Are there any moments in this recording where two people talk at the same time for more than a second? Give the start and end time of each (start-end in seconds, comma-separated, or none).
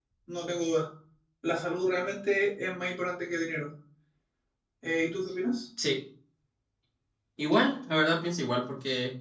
none